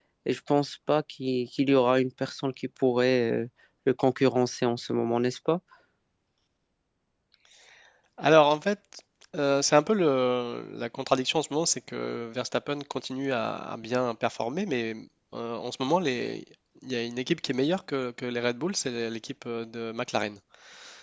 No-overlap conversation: Yes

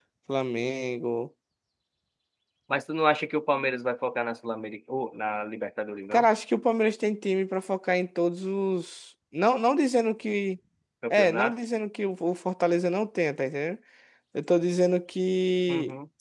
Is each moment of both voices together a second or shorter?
Yes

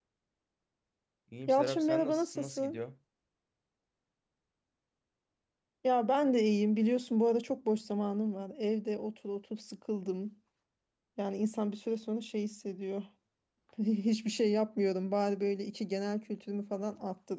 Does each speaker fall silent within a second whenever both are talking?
No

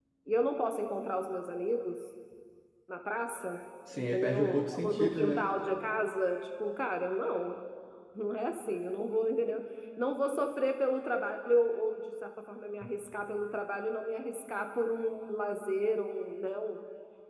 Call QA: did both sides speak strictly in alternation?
No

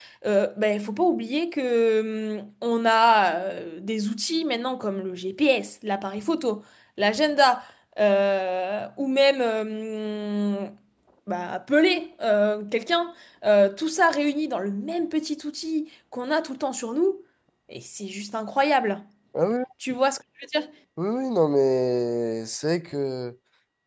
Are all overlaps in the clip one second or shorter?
Yes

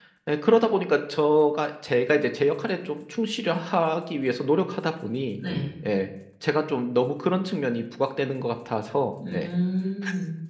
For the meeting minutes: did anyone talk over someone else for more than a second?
No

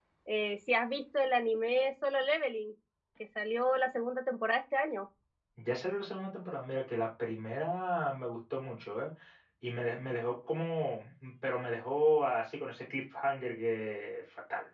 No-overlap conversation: Yes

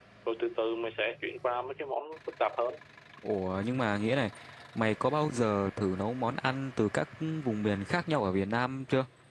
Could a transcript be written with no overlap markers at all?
Yes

